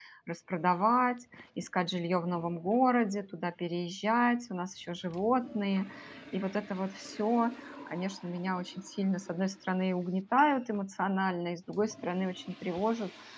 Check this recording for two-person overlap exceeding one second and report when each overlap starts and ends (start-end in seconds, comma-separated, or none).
none